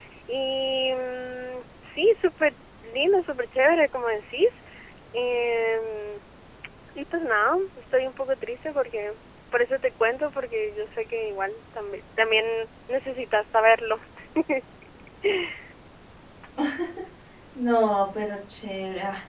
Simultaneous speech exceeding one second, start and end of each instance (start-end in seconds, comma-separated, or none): none